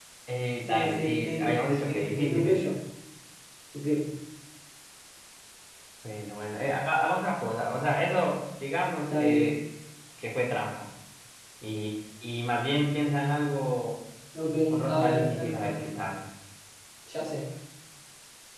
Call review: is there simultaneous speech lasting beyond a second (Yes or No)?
Yes